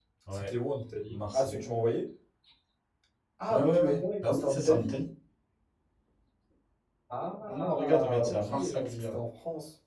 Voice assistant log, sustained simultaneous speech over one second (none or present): present